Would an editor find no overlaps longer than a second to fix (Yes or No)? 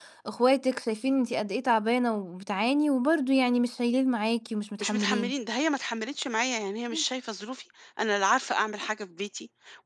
Yes